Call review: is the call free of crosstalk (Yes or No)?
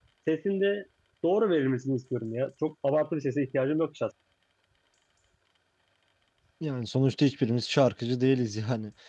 Yes